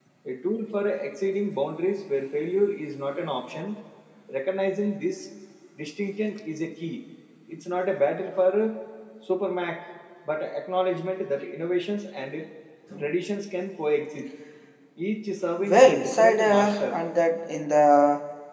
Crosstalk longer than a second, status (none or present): present